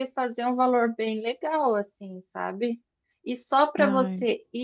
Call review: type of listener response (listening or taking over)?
listening